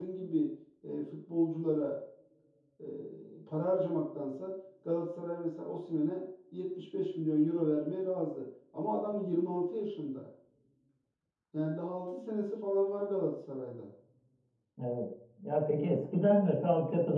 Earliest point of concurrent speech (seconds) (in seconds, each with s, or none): none